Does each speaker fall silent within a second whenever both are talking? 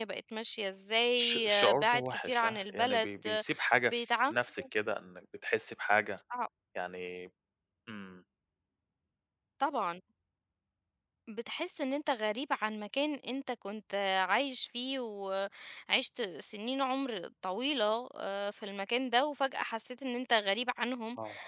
No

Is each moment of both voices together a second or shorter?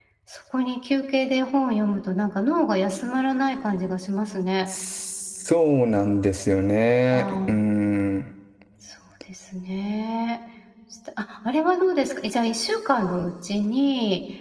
Yes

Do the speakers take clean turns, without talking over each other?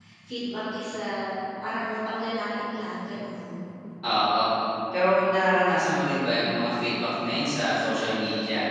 Yes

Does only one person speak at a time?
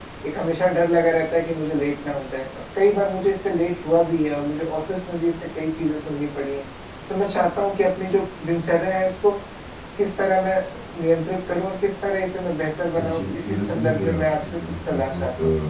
No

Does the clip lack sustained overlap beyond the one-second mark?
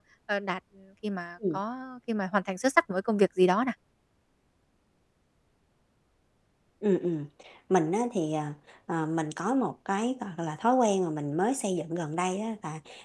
Yes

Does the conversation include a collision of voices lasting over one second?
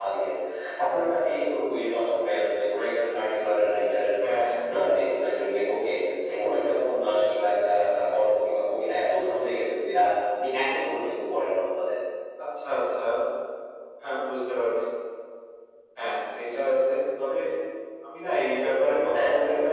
No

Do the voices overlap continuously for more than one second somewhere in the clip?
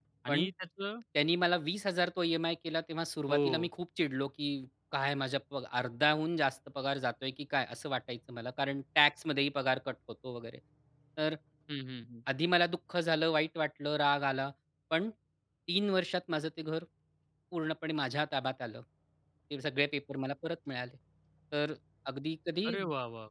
No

